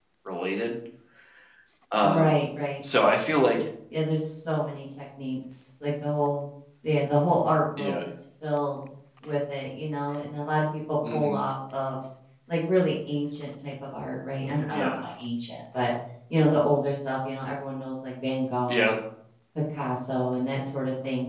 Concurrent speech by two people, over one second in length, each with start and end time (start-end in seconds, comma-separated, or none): none